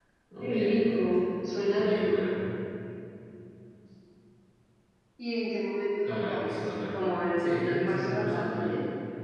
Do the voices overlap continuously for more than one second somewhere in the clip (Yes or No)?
Yes